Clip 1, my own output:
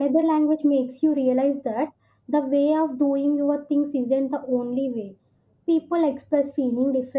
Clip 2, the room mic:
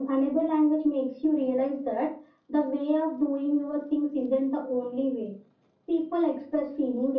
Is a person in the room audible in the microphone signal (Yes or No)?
No